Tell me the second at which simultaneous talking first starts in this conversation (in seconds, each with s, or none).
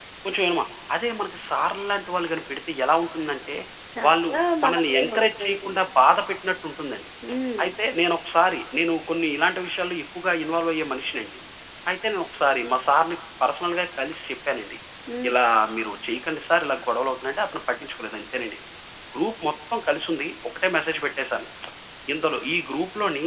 4.0 s